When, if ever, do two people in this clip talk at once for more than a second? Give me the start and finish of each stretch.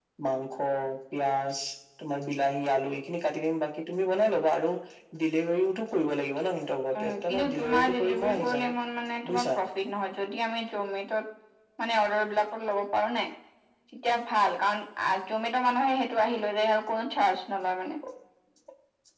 7.0-8.7

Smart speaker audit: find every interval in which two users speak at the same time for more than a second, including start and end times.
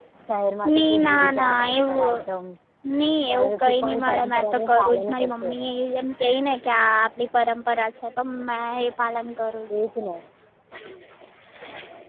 0.8-2.2, 3.3-5.5

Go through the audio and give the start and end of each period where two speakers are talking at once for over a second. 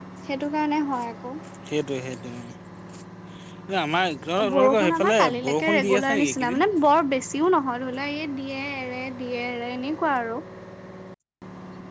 4.5-6.6

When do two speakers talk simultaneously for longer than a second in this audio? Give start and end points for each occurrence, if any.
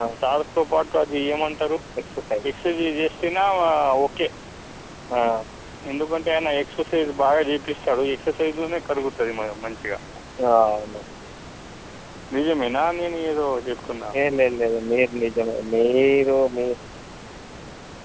none

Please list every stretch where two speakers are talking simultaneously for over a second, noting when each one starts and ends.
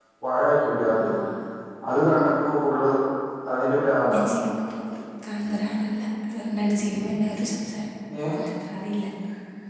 none

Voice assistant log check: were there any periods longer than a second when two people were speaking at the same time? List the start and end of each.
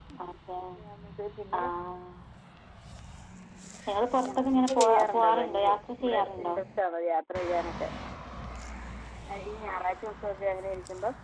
4.4-6.6

